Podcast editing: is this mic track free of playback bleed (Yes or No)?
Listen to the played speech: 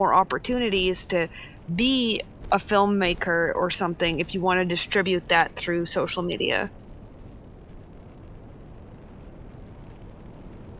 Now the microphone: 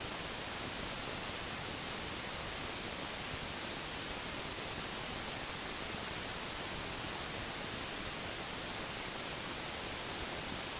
Yes